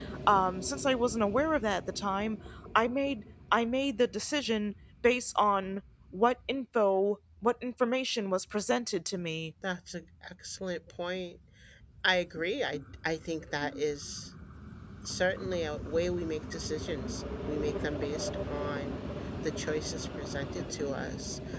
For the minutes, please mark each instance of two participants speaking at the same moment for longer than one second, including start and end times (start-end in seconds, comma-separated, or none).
none